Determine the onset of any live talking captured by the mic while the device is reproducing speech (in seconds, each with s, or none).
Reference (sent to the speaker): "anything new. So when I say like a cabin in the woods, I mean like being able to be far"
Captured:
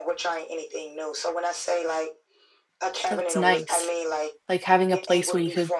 3.1 s